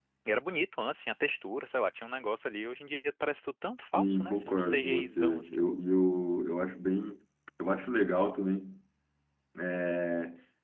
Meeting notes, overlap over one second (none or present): present